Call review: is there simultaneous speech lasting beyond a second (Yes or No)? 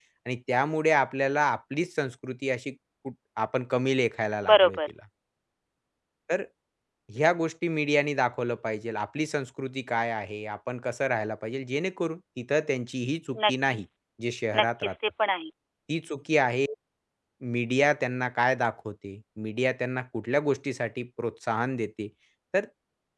No